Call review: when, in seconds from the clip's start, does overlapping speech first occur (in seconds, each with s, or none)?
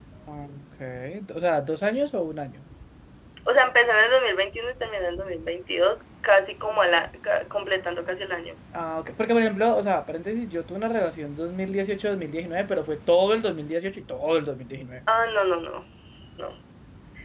none